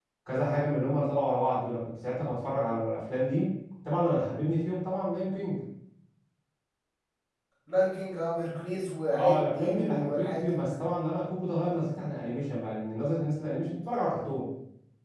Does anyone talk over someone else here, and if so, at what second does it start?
9.1 s

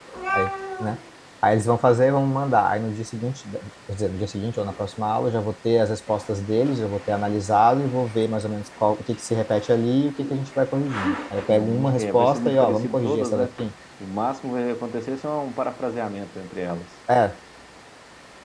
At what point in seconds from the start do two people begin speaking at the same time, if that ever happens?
11.5 s

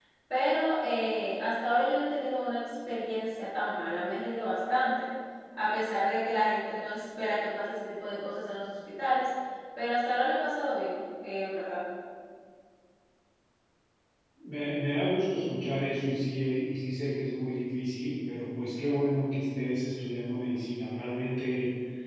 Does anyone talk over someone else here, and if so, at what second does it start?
none

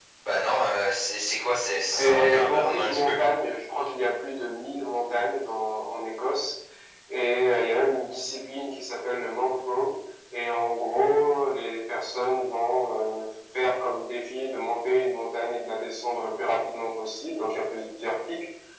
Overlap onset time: 1.8 s

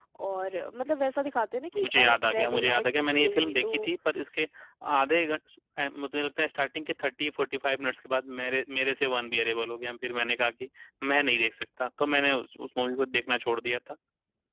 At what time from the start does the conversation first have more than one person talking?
1.7 s

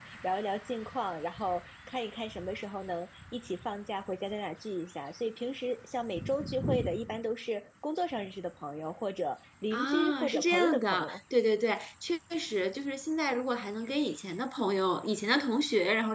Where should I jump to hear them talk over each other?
9.7 s

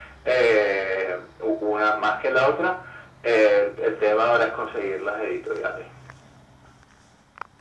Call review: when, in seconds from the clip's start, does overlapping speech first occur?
none

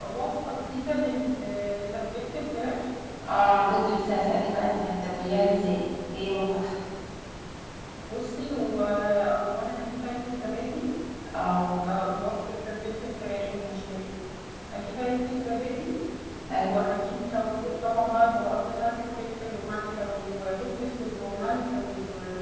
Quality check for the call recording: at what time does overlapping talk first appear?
none

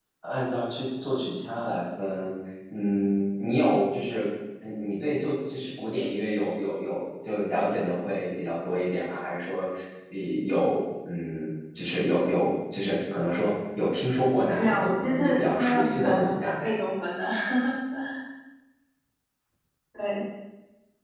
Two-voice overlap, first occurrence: 14.5 s

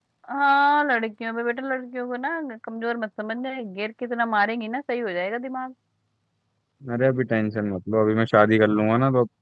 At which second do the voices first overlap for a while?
none

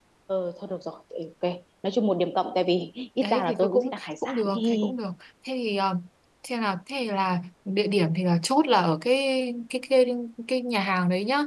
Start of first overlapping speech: 3.2 s

